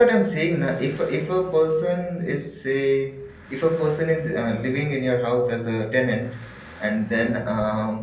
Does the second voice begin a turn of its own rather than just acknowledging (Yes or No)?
No